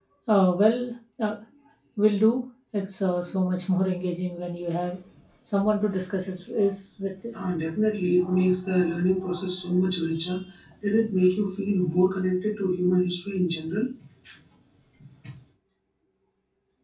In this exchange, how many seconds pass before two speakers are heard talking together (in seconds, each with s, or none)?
none